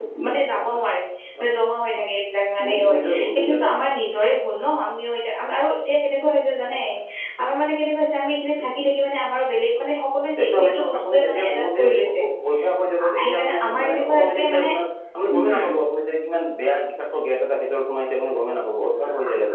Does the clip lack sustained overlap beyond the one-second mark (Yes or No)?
No